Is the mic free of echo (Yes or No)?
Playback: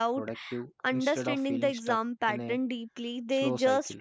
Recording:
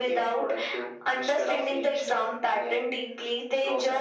No